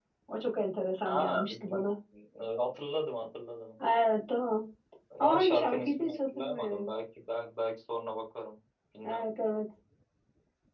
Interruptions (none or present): present